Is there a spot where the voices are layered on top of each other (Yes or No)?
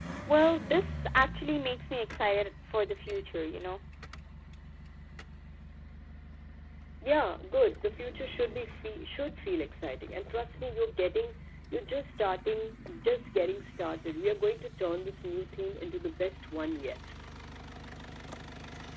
No